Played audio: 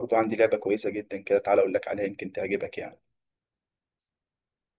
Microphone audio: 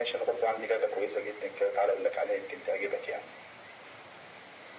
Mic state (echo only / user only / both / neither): echo only